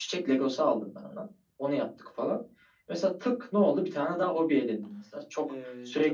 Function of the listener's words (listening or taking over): listening